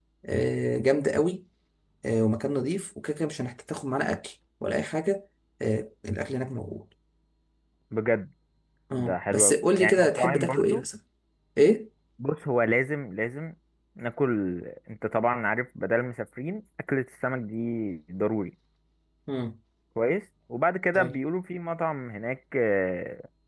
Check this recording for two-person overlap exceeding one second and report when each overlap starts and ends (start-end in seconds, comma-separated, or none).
9.0-10.8